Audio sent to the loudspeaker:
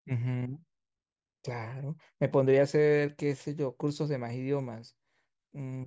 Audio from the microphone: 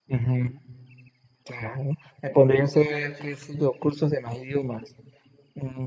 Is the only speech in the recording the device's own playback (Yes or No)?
No